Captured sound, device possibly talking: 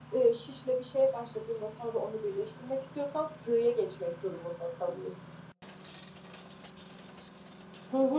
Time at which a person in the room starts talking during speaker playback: none

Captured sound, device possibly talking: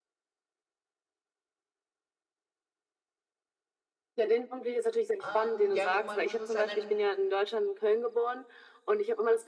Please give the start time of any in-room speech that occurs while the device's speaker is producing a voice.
5.2 s

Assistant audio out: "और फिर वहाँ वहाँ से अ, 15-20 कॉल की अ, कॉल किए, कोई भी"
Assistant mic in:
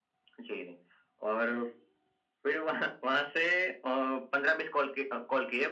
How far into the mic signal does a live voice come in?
none

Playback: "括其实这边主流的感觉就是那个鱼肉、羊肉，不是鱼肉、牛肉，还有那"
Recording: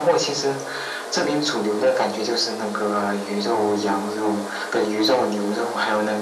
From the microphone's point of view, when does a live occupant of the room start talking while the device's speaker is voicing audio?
none

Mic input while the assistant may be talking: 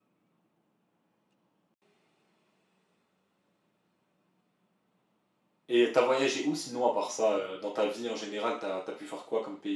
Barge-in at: 5.7 s

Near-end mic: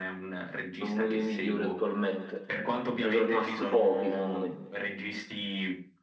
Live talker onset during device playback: 0.8 s

